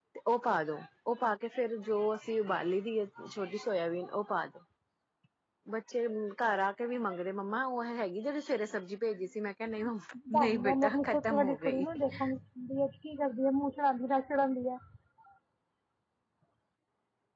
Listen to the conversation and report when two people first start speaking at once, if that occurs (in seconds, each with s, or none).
10.4 s